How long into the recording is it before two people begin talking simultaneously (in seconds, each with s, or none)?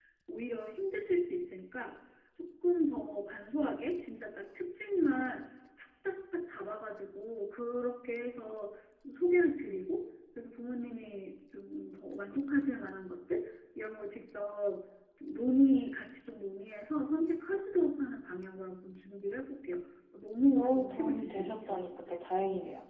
20.5 s